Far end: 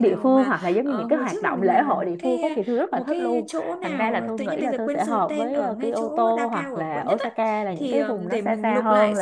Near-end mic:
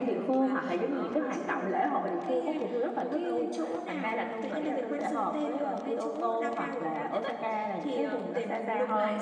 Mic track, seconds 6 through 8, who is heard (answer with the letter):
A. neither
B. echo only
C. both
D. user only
B